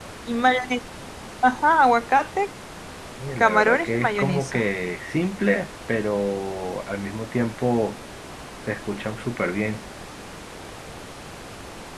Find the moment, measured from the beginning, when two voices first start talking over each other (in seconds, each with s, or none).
3.4 s